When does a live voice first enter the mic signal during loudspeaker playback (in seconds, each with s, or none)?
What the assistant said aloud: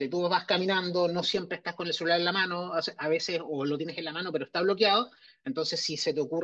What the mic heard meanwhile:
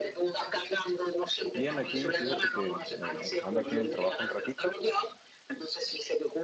1.5 s